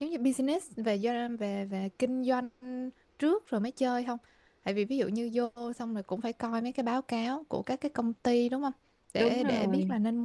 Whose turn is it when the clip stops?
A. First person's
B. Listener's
A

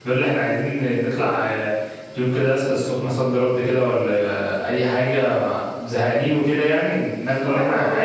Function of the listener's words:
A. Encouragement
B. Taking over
B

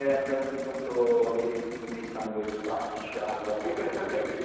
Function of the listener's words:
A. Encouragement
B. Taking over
B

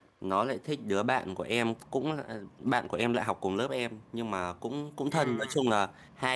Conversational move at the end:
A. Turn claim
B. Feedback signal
B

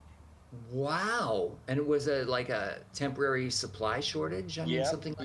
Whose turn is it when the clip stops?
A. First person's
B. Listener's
B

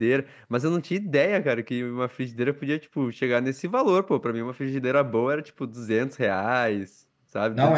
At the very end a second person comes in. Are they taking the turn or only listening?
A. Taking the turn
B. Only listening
A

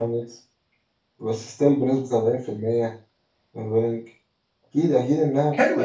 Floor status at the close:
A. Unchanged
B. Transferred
B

